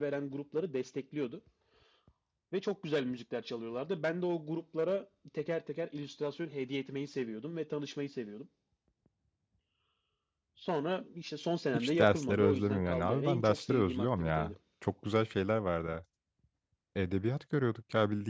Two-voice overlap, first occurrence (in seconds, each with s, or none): 11.7 s